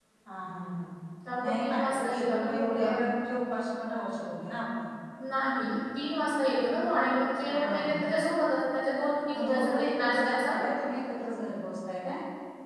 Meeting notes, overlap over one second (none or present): present